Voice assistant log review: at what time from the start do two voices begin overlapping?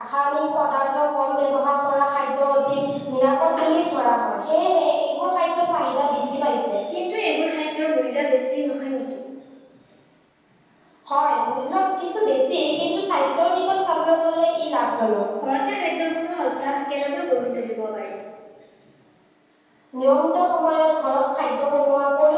none

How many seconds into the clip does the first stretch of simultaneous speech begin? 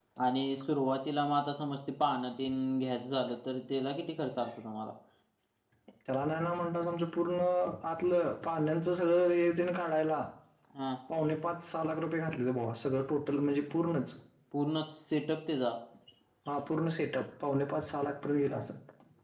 none

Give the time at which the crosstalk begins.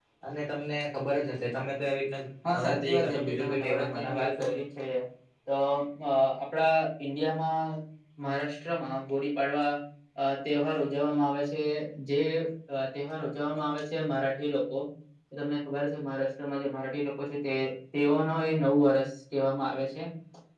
2.4 s

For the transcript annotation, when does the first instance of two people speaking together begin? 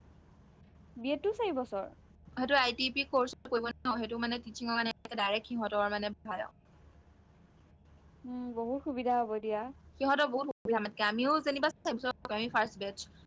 none

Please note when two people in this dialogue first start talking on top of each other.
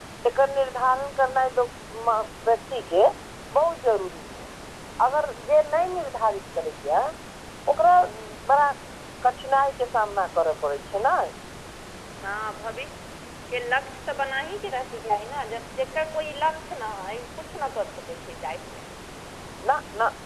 none

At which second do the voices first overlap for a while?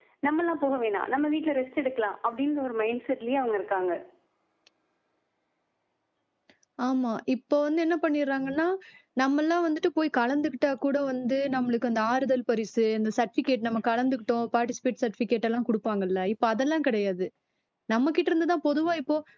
none

